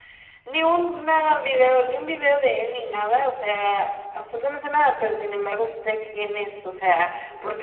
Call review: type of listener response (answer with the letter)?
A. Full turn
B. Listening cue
B